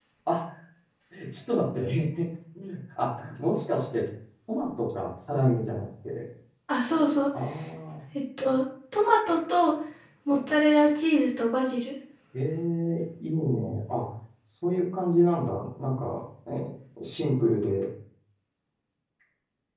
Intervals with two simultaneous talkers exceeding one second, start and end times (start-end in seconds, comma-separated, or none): none